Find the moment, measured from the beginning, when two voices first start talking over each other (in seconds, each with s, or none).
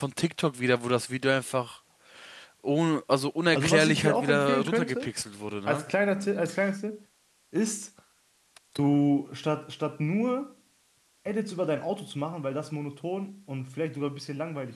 3.5 s